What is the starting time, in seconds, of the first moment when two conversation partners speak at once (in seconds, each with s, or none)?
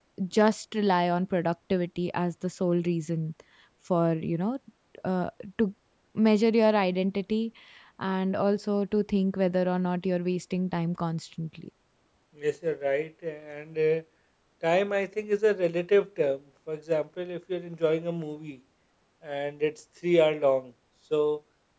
none